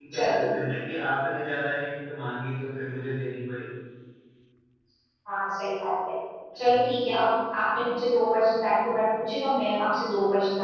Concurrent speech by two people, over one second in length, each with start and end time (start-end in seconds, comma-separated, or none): none